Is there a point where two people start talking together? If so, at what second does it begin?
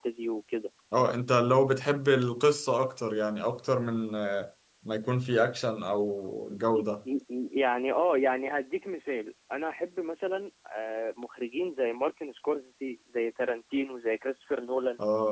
none

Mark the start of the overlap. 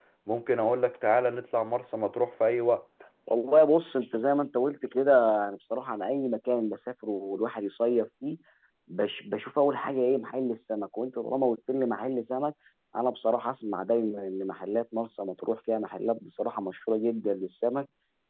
none

